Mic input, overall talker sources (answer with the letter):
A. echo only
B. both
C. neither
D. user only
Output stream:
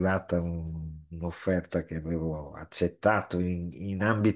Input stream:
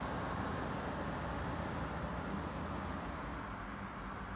C